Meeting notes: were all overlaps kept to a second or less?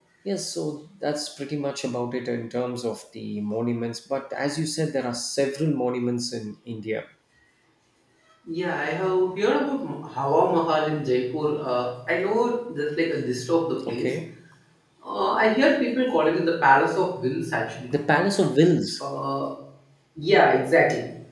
Yes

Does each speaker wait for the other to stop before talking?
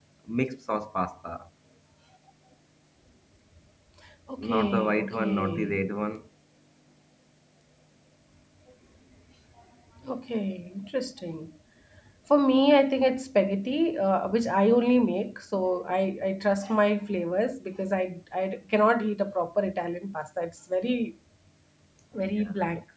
No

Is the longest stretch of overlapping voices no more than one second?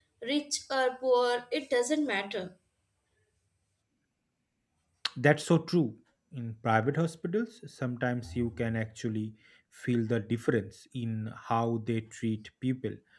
Yes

